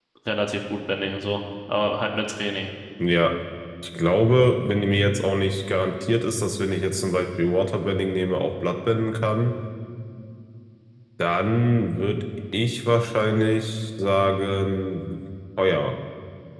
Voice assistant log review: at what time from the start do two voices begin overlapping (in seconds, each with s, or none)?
none